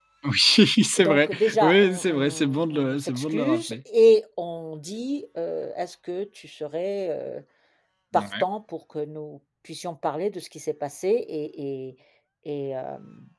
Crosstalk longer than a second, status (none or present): present